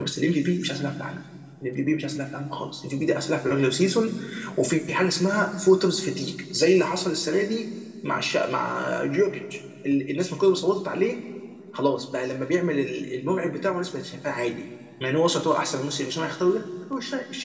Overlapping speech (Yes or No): No